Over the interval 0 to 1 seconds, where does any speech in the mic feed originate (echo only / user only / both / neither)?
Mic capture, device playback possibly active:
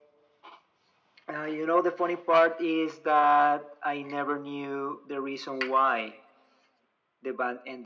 neither